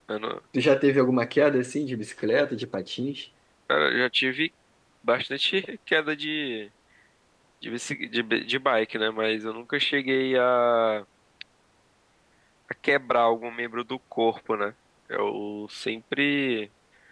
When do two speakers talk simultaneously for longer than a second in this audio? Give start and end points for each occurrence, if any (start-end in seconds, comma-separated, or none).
none